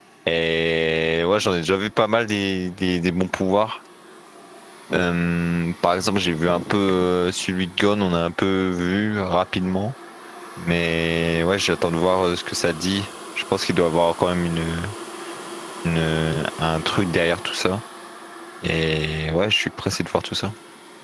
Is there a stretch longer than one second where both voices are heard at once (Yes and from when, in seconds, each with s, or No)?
No